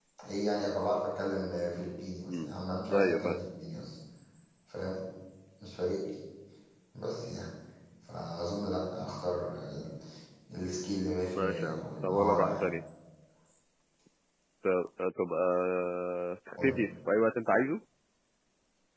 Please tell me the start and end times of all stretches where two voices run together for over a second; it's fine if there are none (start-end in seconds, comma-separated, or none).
11.3-12.6